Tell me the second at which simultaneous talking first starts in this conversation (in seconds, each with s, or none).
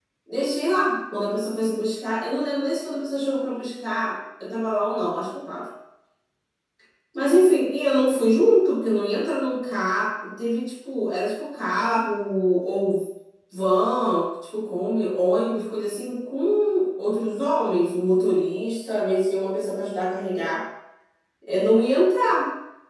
none